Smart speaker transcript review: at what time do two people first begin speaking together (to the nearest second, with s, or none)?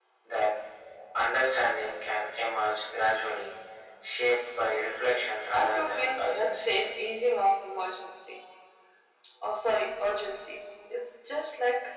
6 s